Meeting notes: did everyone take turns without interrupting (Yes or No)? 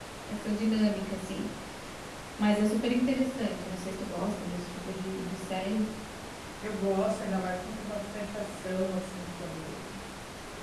Yes